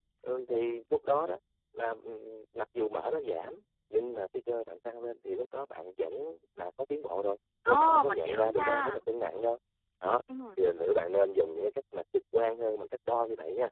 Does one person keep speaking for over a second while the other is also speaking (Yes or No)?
Yes